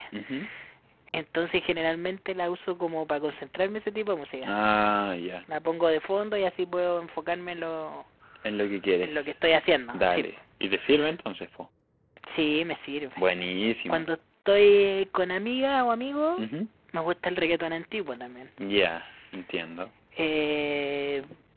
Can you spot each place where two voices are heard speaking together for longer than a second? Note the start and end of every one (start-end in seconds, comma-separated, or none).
none